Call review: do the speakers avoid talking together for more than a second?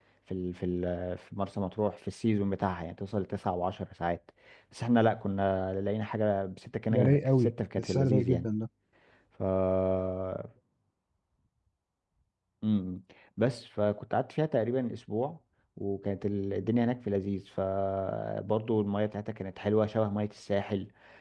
No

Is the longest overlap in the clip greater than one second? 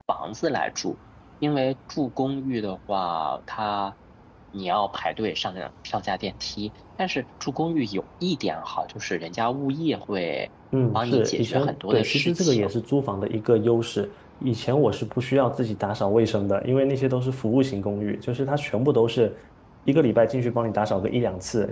Yes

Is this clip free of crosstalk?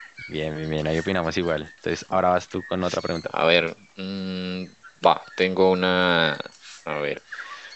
Yes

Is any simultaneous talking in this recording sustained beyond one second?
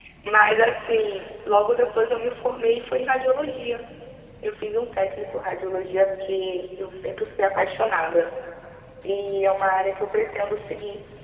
No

